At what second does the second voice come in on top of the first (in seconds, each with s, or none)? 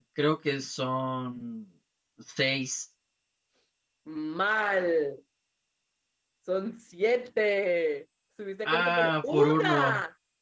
8.6 s